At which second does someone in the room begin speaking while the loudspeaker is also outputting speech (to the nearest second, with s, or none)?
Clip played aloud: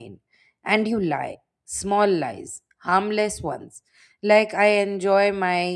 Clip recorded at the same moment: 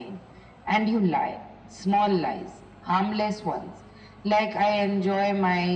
none